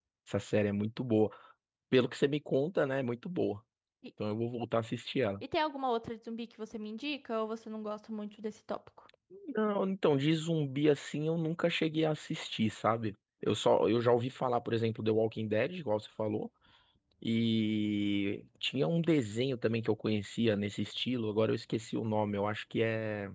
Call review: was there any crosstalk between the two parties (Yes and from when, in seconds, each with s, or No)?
No